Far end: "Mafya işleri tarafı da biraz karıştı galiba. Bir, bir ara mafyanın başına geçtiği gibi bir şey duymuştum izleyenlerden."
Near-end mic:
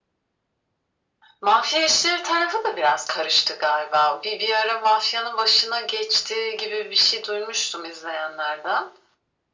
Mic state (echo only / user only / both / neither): echo only